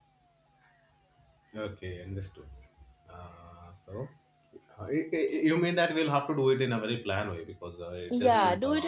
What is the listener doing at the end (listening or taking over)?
taking over